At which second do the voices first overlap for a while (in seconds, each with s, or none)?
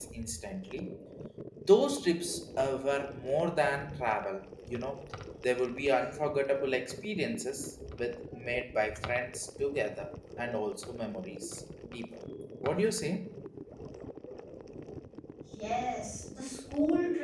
none